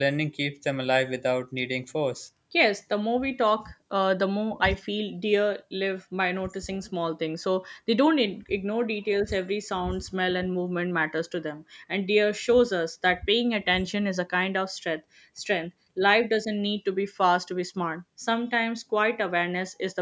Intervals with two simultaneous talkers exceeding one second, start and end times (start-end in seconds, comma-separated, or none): none